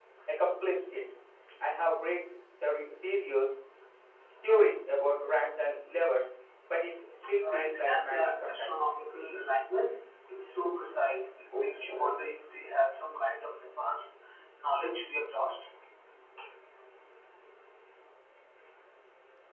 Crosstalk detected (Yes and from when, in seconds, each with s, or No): Yes, from 7.5 s